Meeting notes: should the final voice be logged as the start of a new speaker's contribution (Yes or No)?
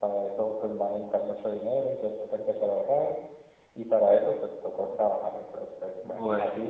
No